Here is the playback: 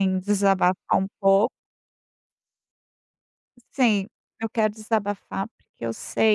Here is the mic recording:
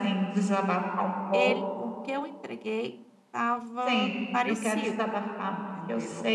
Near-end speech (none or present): present